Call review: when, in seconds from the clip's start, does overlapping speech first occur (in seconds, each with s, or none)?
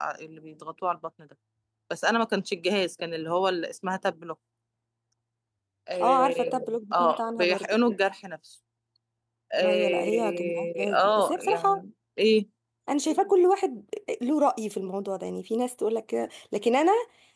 6.0 s